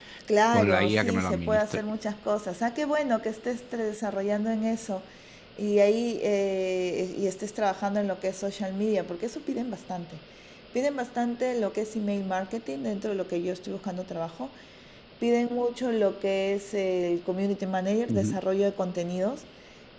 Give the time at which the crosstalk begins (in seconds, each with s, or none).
0.5 s